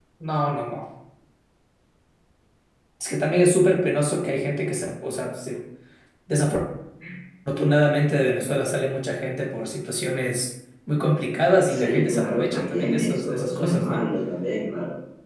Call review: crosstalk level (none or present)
present